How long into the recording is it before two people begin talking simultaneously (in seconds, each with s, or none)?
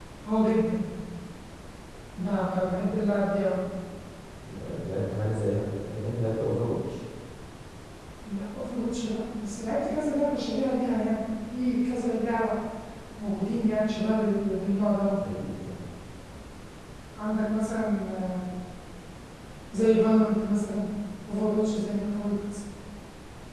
none